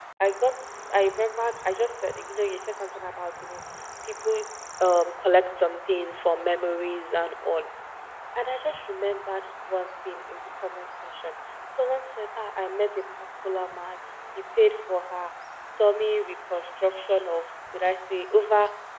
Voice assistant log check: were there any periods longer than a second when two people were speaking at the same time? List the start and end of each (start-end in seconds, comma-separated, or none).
none